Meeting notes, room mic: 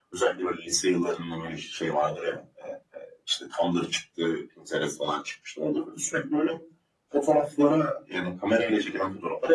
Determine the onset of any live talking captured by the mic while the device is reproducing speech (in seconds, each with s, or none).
none